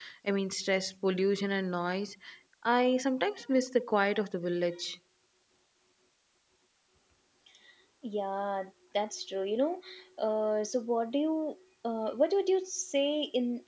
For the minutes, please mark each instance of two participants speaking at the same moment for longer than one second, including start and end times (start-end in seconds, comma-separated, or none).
none